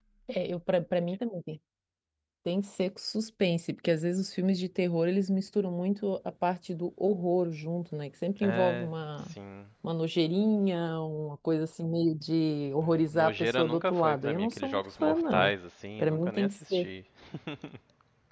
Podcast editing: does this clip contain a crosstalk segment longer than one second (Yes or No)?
Yes